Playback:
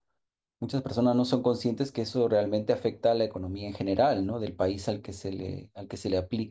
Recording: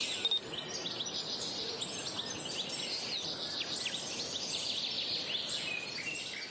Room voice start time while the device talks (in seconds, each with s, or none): none